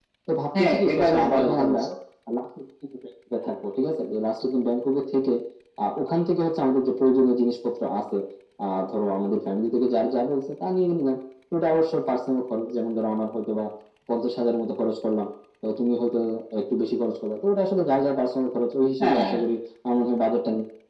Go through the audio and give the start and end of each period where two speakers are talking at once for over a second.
0.6-1.8

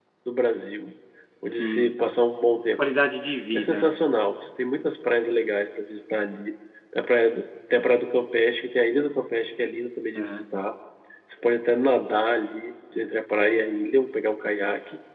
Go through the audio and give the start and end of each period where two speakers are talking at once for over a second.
none

